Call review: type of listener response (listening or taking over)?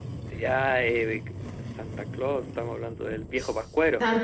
taking over